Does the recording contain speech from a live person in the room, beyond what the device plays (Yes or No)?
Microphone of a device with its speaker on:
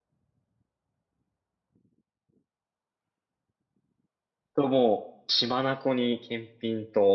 Yes